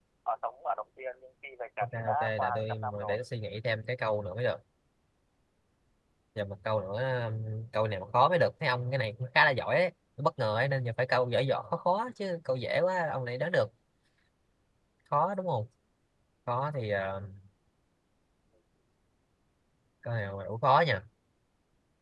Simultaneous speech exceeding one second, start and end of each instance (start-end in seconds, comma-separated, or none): 1.8-3.2